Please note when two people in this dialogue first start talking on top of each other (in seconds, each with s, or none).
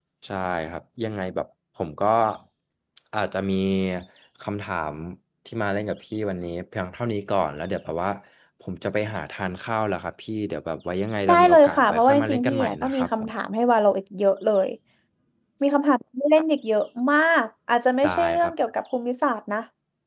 11.3 s